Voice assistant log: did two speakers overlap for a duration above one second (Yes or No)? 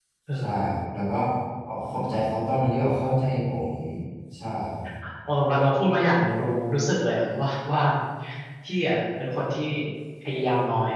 No